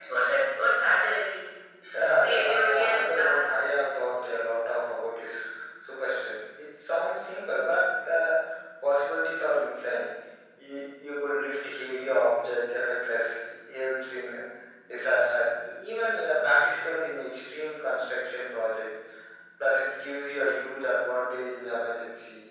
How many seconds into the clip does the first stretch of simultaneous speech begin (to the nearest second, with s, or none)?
2 s